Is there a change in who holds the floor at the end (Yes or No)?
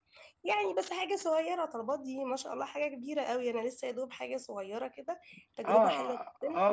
Yes